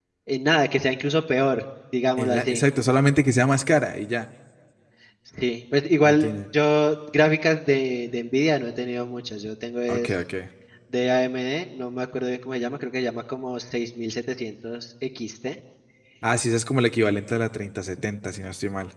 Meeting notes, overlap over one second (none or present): none